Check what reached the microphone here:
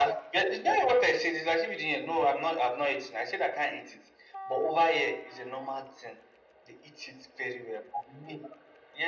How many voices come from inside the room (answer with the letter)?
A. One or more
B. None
B